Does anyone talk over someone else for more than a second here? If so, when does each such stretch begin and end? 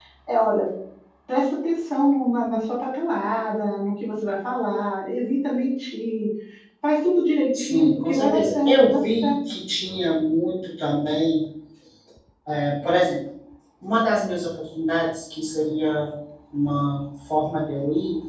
7.5-9.3

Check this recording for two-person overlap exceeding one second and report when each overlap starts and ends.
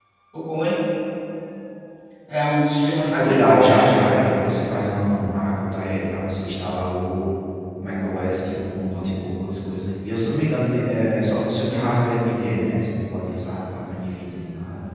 3.1-4.5

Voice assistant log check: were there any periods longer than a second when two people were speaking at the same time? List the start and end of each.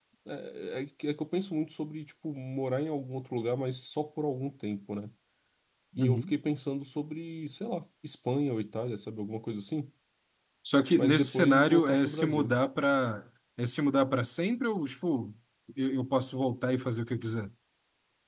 10.9-12.5

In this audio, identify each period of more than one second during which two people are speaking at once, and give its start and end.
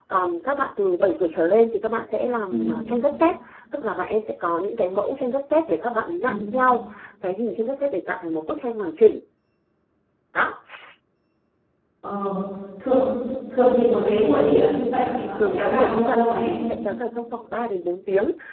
15.4-16.6

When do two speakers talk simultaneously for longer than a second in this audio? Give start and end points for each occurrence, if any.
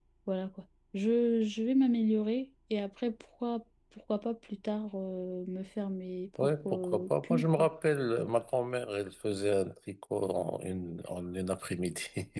6.4-7.7

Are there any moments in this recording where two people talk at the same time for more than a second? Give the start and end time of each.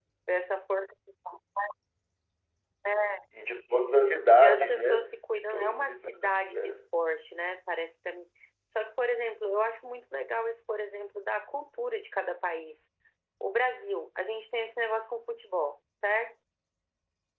4.3-6.8

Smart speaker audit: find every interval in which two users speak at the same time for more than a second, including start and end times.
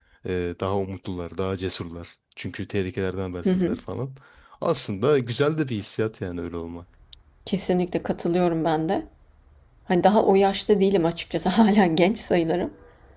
none

